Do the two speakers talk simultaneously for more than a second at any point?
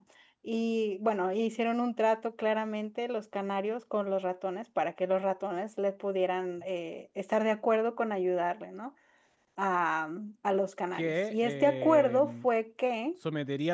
Yes, from 10.9 s

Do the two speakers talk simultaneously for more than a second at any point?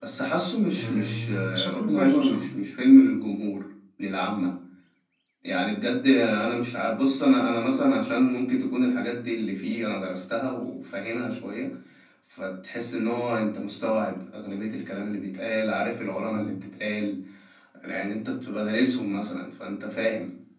Yes, from 0.8 s

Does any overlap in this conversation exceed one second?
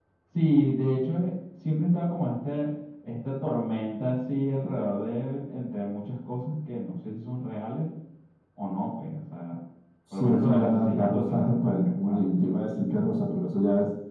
Yes, from 10.1 s

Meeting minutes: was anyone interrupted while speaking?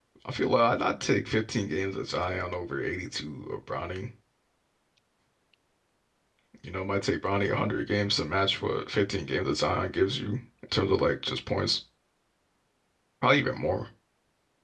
No

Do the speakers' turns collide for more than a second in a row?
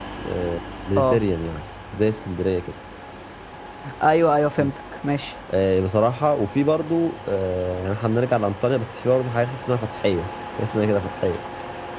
No

